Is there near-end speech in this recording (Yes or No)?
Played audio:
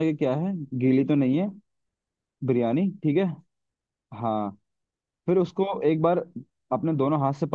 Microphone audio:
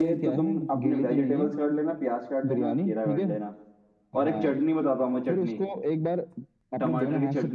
Yes